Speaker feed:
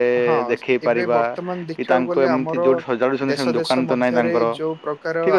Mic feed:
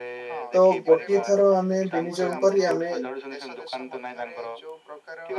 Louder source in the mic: user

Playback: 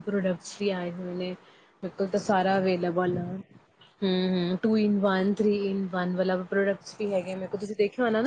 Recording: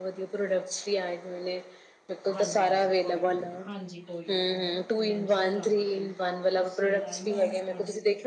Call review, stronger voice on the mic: echo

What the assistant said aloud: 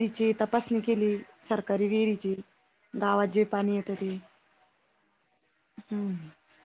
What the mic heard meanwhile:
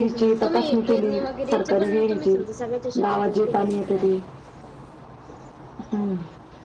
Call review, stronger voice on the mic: echo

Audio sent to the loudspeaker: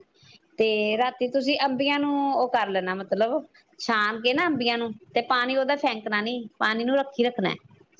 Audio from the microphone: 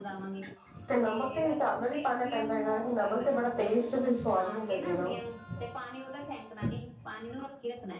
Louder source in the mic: user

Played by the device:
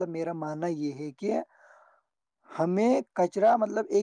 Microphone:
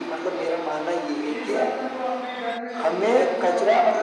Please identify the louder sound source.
echo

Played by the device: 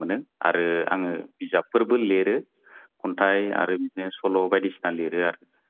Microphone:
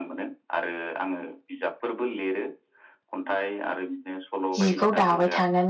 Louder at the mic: user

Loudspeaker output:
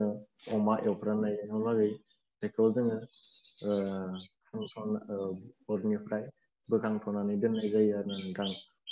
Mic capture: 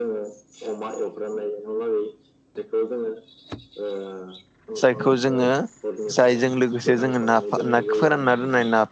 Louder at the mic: user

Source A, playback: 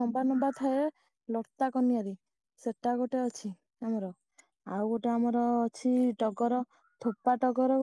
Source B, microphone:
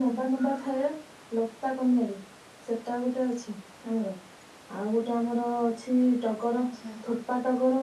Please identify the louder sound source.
echo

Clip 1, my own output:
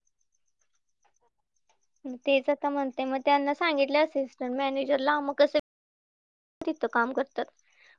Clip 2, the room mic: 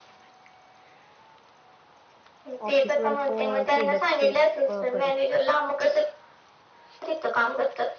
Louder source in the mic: echo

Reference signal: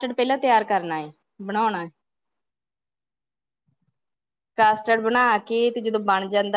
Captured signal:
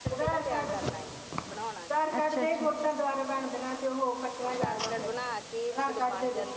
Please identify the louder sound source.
user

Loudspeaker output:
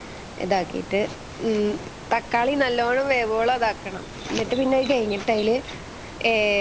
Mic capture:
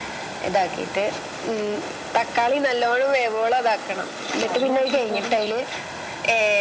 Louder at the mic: echo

